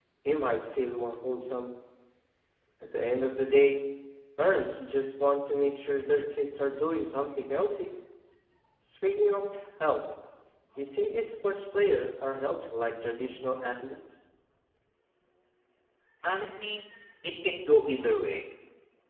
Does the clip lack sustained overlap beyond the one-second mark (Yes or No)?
Yes